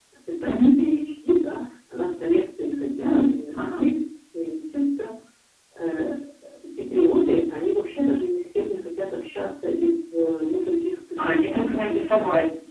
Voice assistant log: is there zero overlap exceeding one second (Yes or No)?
No